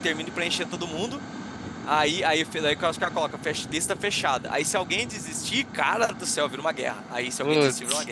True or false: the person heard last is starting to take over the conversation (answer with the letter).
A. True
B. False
B